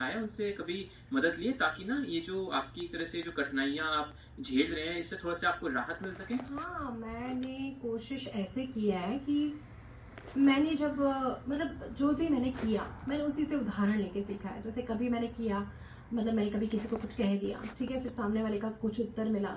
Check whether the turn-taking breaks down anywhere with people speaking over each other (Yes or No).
No